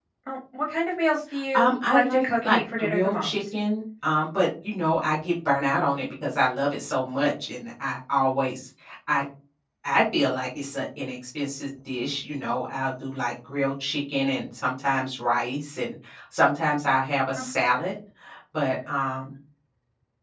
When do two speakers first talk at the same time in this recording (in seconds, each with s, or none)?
1.5 s